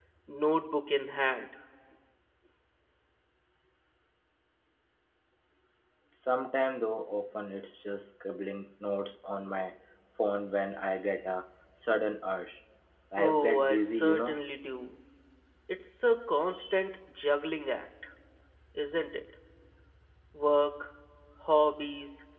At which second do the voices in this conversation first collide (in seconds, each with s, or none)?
13.2 s